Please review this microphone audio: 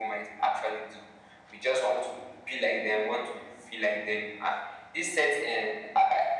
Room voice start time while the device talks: none

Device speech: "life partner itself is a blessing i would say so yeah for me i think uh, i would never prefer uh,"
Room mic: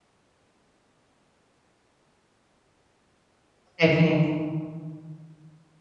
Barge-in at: 3.8 s

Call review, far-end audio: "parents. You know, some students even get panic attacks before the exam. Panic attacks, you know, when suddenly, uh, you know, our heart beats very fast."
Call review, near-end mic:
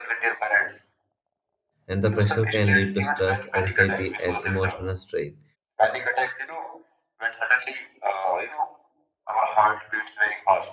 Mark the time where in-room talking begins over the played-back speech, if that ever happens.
1.9 s

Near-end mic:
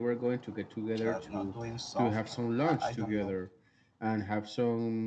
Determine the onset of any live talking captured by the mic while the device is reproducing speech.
1.0 s

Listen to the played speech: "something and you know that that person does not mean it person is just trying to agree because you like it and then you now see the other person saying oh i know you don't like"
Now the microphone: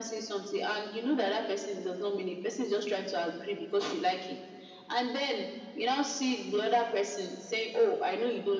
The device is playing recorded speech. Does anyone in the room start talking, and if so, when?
none

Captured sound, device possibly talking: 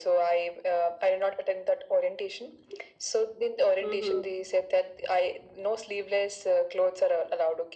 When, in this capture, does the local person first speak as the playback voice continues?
3.8 s

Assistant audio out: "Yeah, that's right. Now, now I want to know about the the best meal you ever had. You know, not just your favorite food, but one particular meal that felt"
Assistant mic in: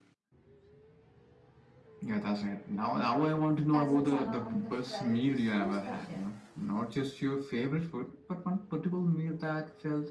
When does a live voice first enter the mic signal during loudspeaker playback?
3.7 s

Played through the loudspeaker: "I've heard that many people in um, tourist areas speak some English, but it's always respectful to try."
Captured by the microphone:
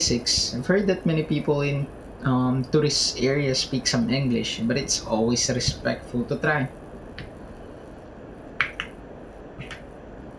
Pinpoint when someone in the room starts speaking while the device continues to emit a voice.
none

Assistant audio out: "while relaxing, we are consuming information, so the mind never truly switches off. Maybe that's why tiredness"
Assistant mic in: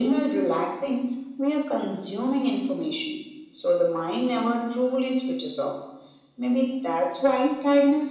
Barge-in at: none

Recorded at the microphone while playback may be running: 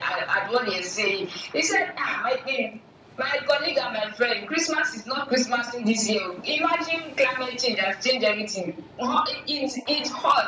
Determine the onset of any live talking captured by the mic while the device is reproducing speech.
none

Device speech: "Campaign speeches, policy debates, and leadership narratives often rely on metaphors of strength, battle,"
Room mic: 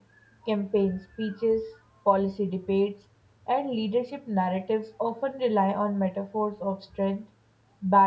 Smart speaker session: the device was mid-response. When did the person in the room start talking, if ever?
none

